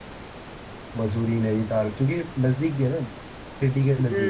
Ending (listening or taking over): taking over